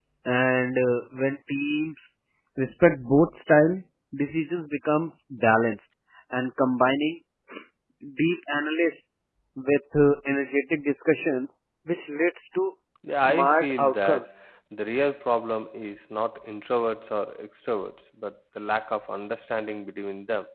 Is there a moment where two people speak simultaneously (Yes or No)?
Yes